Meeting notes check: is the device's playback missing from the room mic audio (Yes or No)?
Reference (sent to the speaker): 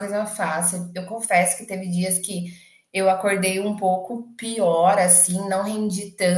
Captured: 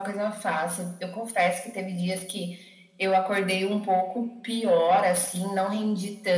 No